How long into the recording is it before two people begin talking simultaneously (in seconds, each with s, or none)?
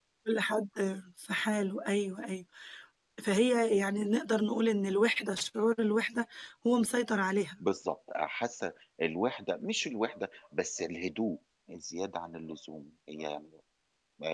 none